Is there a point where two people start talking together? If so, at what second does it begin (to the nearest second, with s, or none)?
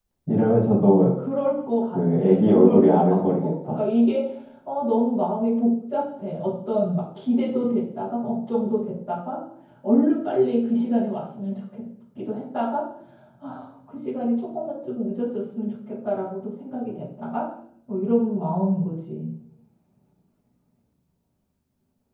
2 s